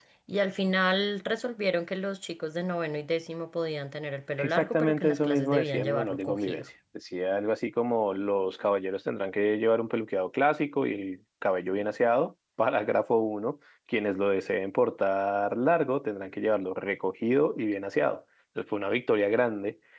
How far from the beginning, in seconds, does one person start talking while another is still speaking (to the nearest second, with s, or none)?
4 s